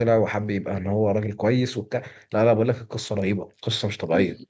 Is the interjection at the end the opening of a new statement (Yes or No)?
Yes